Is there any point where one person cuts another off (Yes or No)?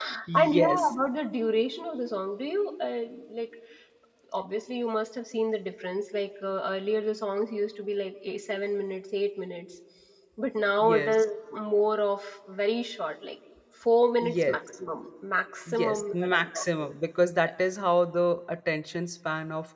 Yes